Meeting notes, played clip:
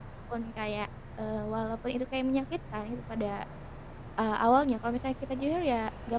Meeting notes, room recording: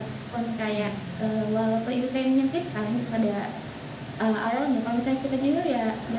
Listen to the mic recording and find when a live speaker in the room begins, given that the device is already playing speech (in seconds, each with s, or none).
0.7 s